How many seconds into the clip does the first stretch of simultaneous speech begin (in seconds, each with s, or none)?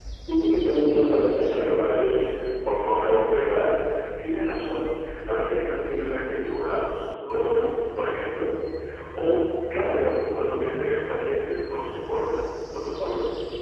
0.9 s